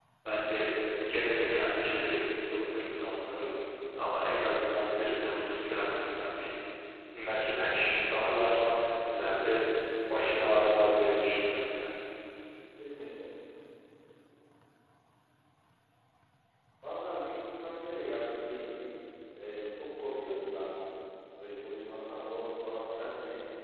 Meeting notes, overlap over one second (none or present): none